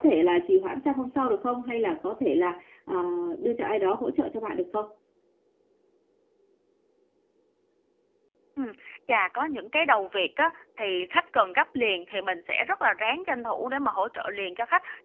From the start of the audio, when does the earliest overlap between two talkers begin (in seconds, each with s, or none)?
none